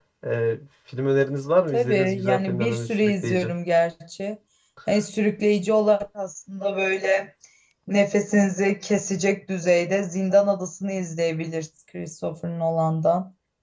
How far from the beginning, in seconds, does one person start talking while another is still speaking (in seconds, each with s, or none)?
1.7 s